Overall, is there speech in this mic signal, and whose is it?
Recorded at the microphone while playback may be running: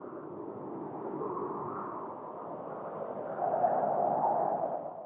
neither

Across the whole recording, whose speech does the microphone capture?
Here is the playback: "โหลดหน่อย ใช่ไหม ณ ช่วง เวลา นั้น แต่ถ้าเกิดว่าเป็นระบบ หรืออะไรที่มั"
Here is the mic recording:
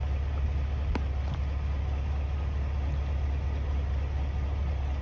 neither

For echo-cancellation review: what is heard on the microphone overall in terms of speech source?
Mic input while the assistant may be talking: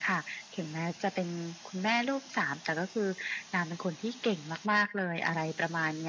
echo only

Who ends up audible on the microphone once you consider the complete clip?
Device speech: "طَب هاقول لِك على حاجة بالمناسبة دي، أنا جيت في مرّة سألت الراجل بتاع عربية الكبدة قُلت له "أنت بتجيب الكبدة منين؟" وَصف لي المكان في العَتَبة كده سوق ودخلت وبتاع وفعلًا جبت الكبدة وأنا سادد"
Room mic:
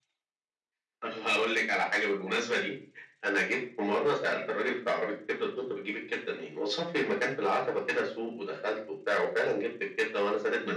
echo only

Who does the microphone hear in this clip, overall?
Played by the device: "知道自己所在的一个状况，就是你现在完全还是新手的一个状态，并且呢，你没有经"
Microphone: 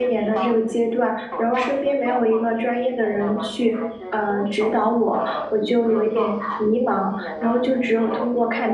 both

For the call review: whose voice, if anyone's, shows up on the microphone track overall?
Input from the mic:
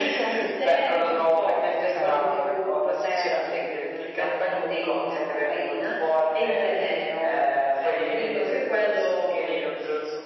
both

